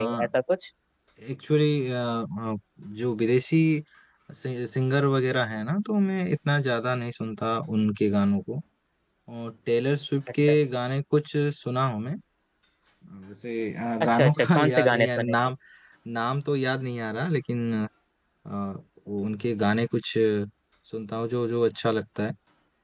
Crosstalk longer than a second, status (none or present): present